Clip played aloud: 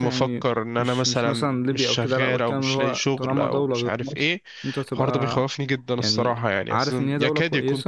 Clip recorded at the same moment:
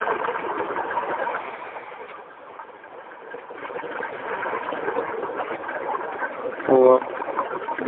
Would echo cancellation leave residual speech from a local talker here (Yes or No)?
Yes